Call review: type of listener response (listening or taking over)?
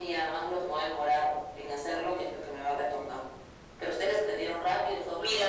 taking over